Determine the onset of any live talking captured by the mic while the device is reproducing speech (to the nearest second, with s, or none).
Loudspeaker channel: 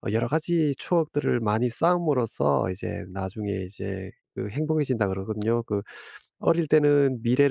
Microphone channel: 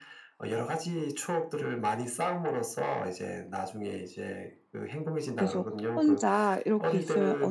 5 s